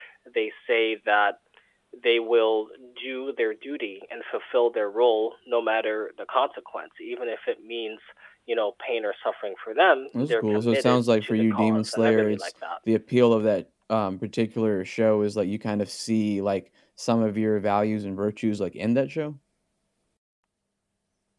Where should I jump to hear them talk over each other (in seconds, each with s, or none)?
10.1 s